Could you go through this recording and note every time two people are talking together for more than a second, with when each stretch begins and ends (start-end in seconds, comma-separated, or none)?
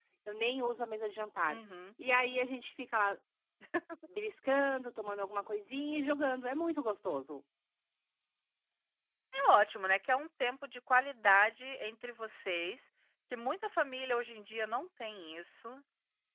none